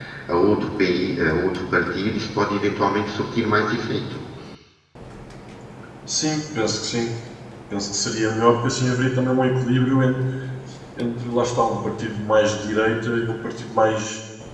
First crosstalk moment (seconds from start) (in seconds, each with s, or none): none